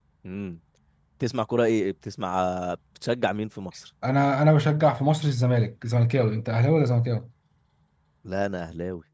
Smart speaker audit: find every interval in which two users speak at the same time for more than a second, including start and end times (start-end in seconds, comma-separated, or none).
none